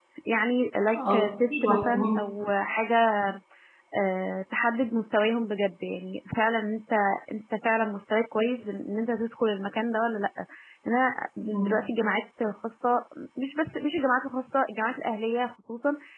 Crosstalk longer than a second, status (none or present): present